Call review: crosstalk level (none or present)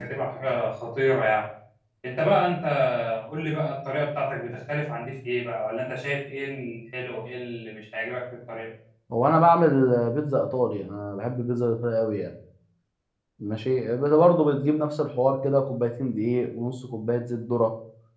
none